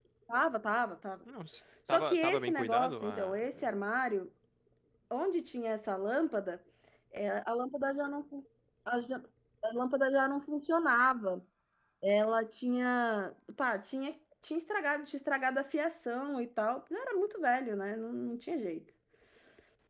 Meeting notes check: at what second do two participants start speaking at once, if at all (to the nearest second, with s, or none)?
2 s